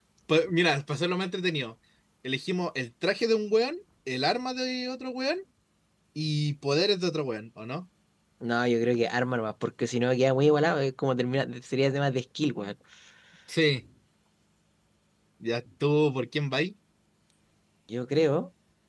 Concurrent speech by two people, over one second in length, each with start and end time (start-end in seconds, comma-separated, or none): none